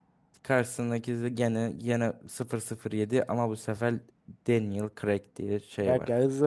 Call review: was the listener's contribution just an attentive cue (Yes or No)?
No